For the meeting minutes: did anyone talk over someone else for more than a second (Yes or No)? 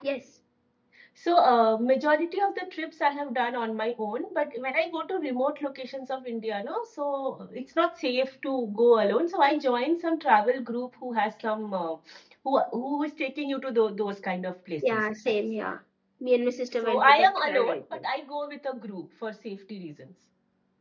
Yes